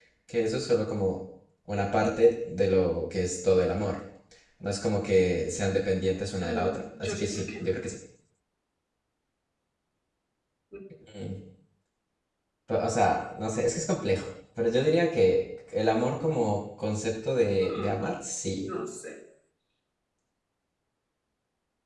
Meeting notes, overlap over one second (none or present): present